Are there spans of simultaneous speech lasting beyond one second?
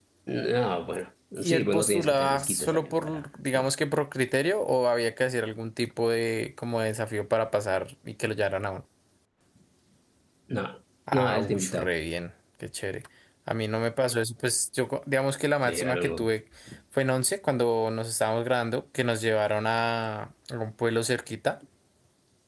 Yes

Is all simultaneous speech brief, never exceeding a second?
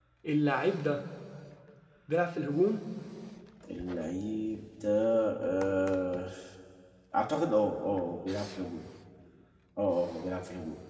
Yes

